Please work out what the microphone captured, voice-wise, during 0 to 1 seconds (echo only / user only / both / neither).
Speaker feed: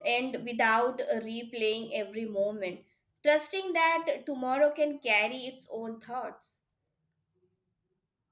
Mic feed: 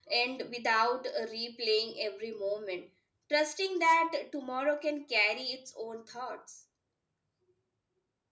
echo only